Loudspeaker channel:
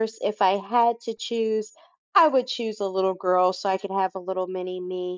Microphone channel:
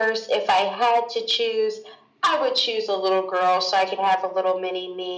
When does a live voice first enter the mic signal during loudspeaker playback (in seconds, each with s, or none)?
none